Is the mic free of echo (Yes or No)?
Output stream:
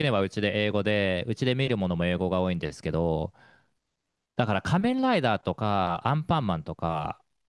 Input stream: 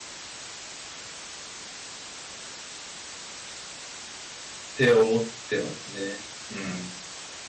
Yes